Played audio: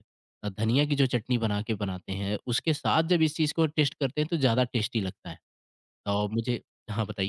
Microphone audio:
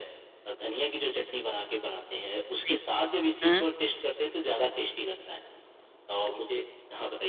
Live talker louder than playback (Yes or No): Yes